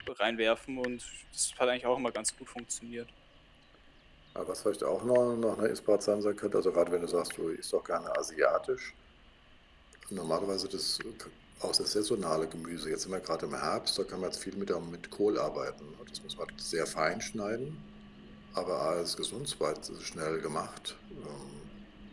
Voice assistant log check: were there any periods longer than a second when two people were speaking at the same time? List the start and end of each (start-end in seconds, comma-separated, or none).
none